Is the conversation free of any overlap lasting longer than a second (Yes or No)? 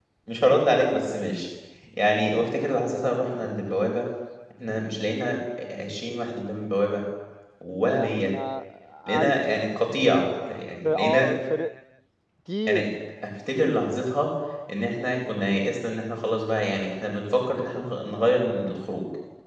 Yes